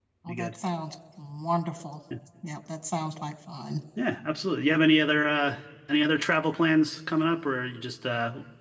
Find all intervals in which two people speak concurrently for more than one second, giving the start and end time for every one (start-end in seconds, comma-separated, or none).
none